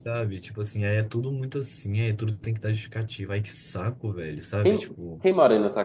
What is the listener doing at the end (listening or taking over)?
taking over